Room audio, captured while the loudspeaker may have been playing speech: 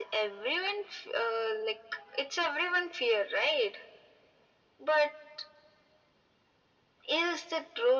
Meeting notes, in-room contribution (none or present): none